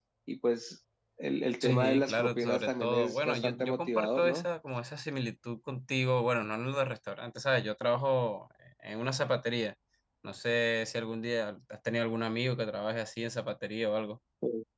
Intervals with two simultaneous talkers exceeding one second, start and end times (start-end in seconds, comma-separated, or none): 1.6-4.5